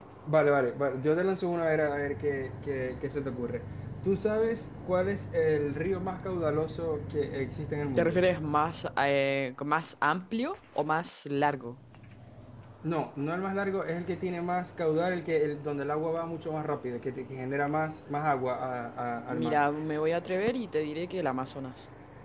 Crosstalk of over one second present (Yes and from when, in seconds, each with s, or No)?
No